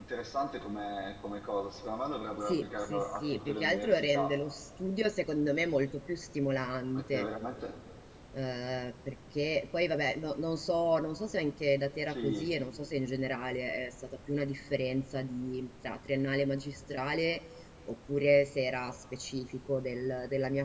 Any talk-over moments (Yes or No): Yes